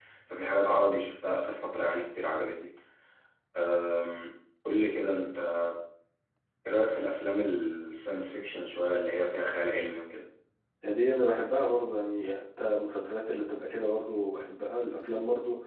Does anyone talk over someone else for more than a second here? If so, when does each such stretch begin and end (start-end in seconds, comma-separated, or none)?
none